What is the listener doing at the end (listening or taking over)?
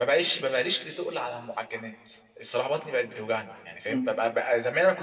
listening